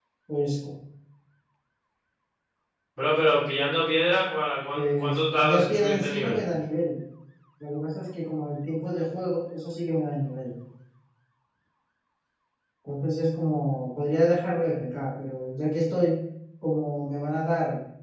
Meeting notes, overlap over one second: present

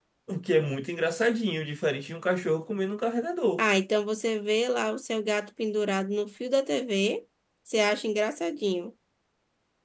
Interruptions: none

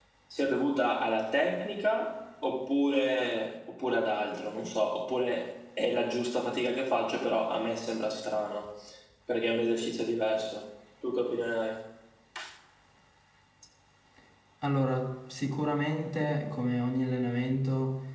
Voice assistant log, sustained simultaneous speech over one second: none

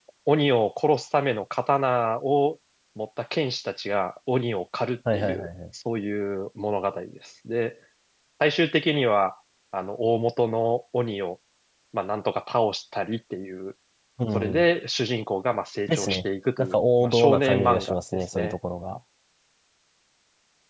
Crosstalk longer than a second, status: present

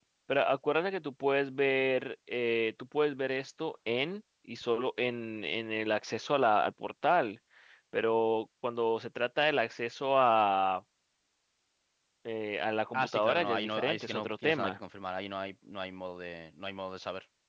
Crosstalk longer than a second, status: present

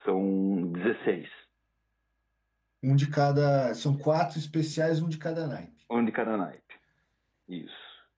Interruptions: none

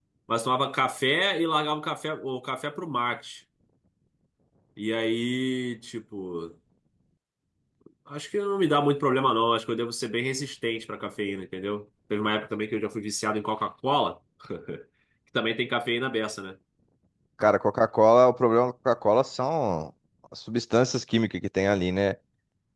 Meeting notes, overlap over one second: none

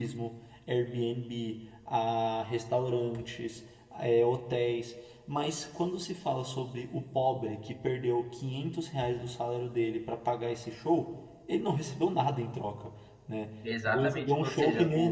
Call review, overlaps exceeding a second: present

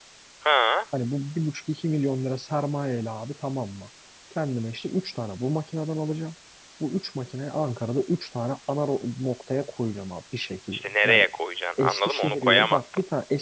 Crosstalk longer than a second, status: present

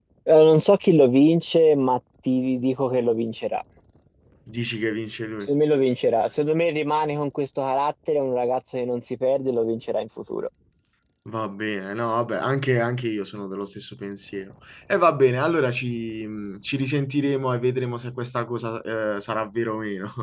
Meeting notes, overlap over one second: none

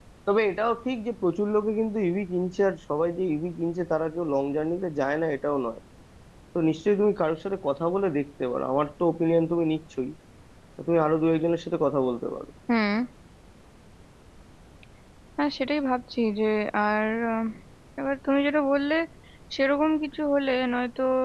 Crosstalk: none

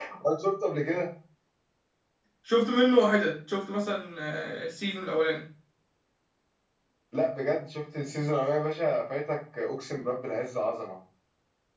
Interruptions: none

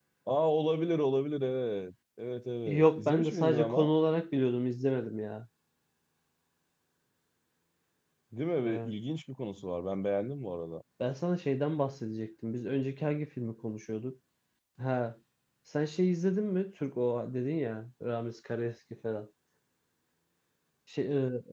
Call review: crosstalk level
present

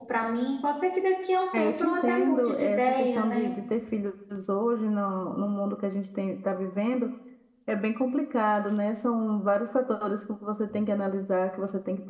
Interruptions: present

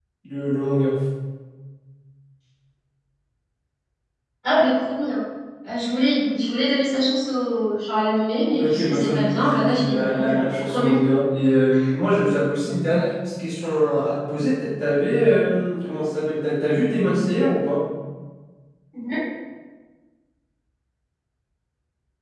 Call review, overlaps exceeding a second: present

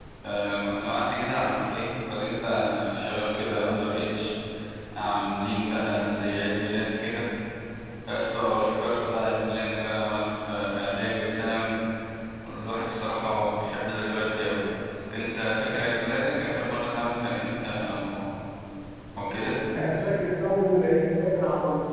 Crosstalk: none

